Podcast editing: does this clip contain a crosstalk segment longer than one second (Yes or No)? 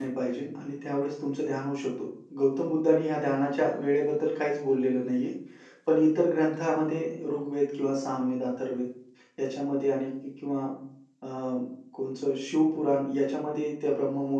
No